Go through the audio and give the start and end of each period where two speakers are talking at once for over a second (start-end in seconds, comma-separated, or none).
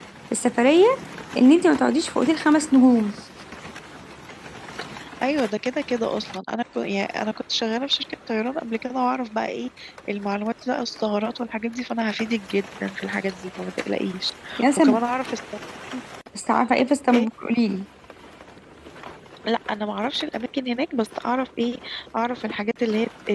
none